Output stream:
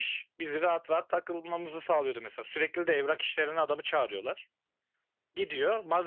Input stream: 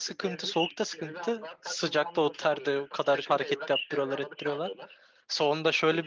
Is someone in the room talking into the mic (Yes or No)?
Yes